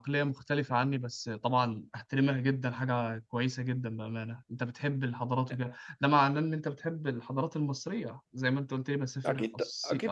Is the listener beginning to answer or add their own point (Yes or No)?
Yes